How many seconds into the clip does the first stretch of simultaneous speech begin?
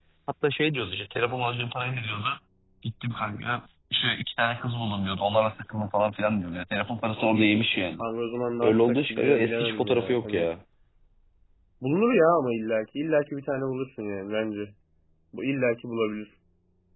8.6 s

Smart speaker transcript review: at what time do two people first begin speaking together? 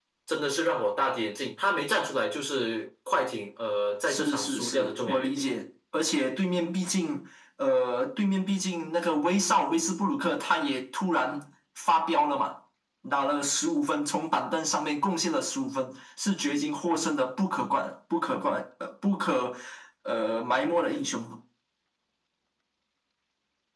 4.0 s

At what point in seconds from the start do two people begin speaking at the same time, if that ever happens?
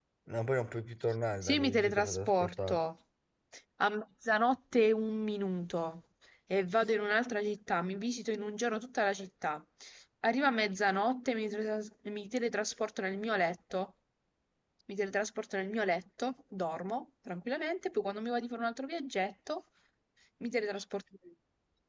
1.4 s

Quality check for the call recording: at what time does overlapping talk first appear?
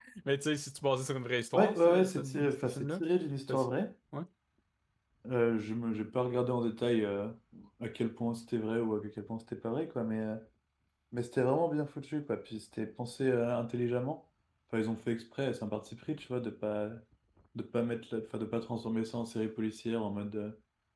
1.5 s

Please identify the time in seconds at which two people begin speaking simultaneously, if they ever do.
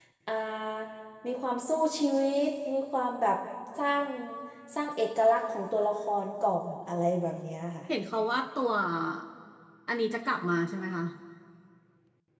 none

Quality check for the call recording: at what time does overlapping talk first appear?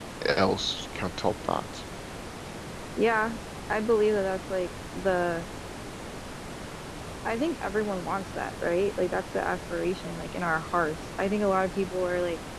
none

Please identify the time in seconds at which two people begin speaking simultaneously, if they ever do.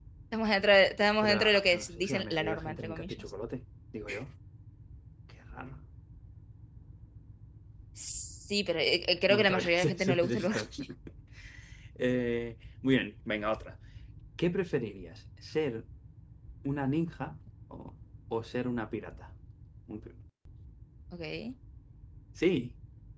1.2 s

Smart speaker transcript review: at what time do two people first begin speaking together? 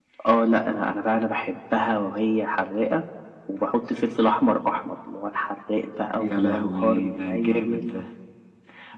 6.1 s

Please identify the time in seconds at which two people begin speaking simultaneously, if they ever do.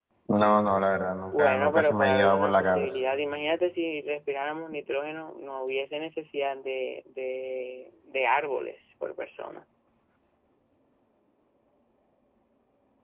1.3 s

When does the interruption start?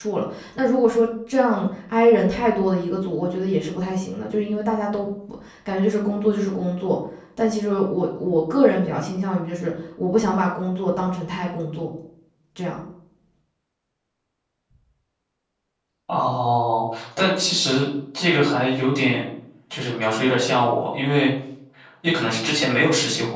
none

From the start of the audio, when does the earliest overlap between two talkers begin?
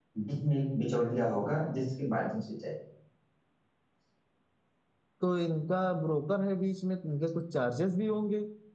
none

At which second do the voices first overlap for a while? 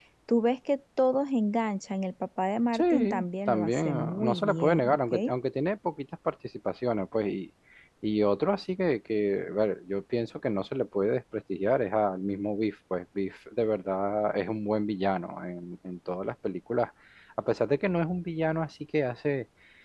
2.7 s

